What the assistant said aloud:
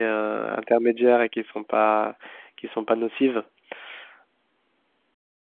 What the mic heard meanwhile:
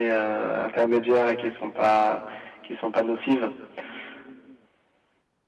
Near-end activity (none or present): none